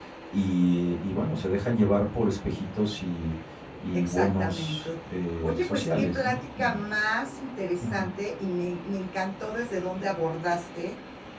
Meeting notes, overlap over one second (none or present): present